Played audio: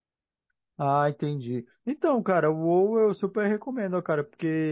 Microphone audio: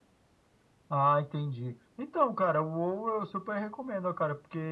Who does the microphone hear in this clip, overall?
echo only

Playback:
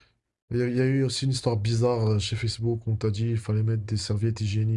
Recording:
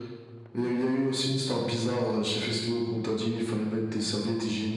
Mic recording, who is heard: echo only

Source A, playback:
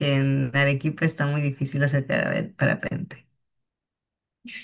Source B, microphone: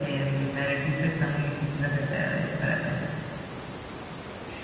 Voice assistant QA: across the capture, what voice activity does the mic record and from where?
echo only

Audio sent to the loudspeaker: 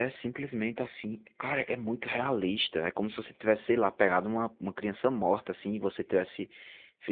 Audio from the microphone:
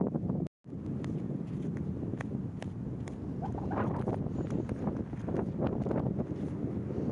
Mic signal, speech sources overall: neither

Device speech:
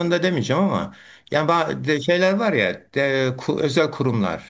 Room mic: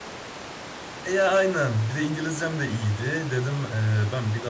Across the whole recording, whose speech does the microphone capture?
user only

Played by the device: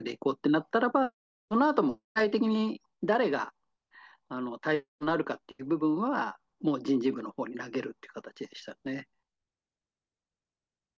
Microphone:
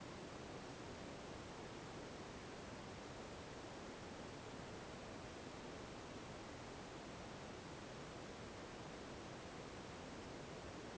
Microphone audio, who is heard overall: neither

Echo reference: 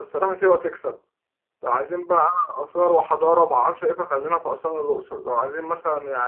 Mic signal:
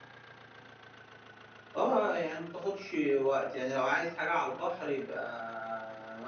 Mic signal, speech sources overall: user only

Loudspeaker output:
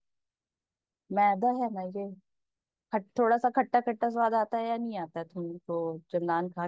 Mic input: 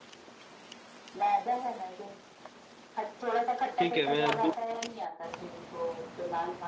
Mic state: both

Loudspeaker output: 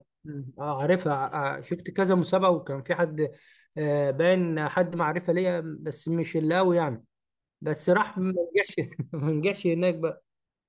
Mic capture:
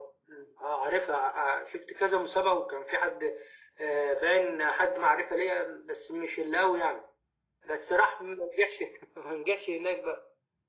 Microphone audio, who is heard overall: echo only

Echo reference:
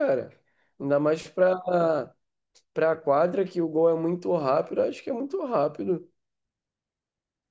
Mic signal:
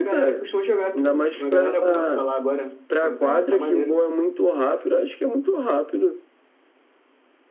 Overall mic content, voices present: both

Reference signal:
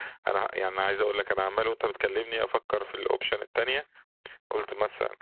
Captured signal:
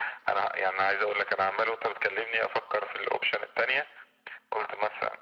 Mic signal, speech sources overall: echo only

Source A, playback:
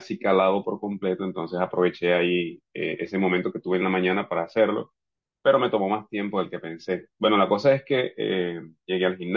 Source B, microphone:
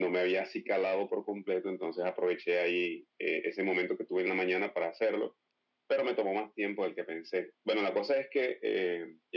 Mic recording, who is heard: echo only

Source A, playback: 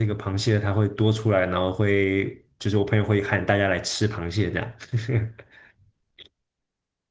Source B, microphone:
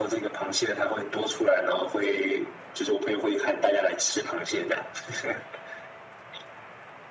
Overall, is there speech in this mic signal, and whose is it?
echo only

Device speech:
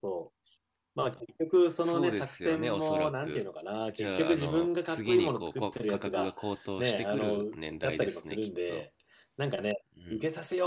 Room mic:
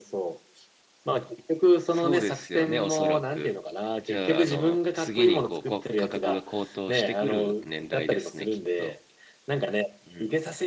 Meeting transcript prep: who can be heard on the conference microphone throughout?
echo only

